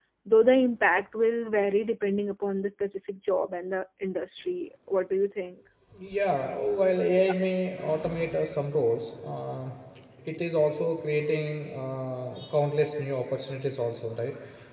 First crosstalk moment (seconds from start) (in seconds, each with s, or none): none